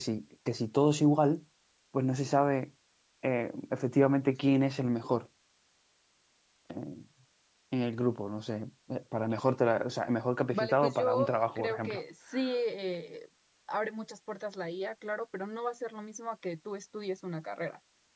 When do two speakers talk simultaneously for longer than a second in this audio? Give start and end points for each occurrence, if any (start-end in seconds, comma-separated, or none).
10.5-12.0